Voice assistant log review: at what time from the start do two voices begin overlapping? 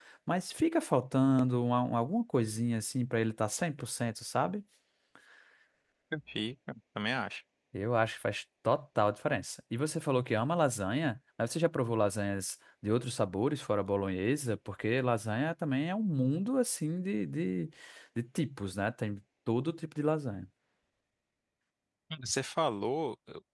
none

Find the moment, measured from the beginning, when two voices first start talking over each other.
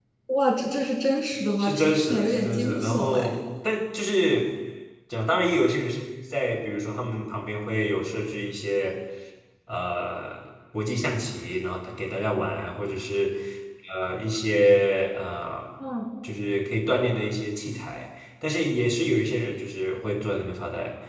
1.6 s

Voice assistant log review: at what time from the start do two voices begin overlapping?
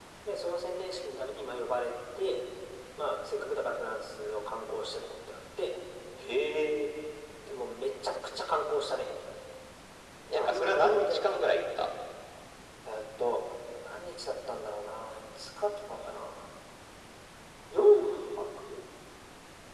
10.3 s

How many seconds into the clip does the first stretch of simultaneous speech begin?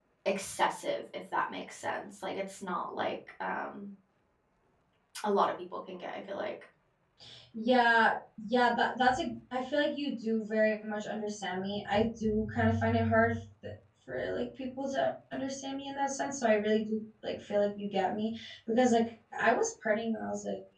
none

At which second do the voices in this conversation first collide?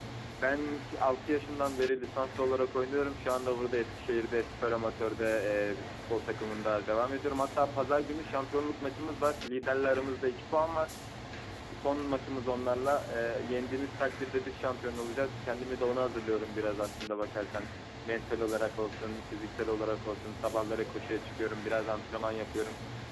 none

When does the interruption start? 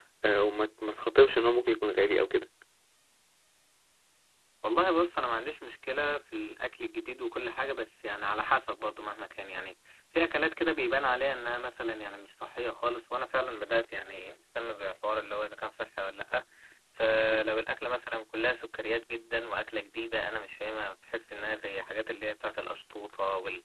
none

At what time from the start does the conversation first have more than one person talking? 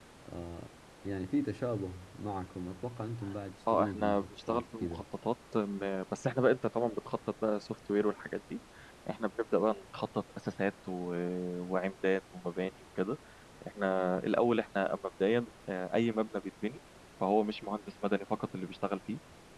3.7 s

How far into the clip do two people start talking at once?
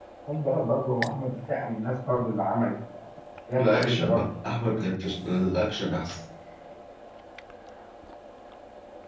3.6 s

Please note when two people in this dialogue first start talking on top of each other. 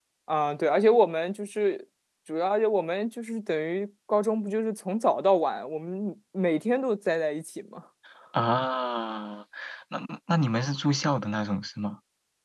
none

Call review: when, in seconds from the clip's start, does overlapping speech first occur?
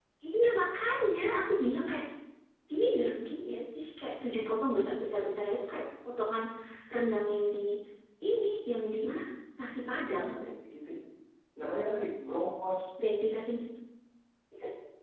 none

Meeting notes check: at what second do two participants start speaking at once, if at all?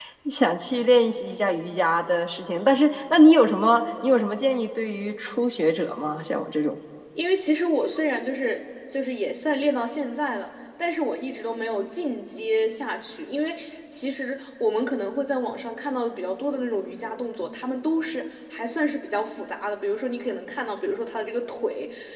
none

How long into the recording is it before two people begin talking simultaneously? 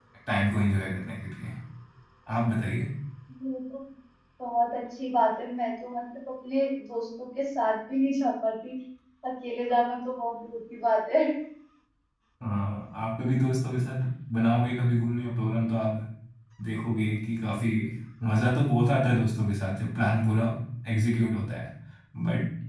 none

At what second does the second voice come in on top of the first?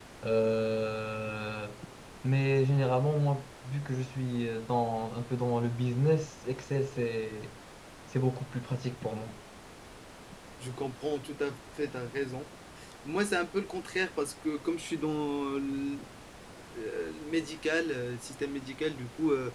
none

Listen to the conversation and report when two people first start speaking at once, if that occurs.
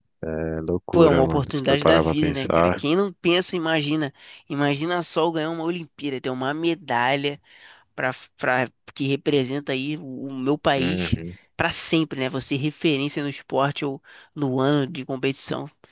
0.9 s

